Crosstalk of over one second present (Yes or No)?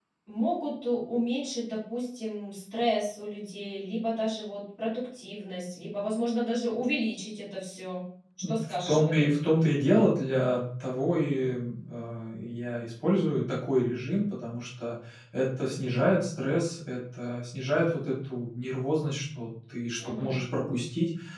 Yes